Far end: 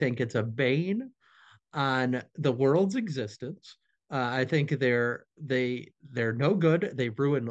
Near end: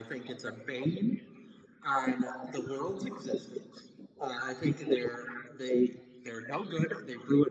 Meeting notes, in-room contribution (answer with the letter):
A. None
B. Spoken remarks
A